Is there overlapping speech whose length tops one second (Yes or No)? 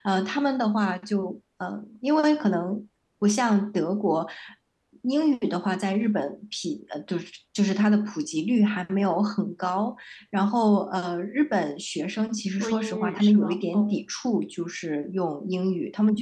Yes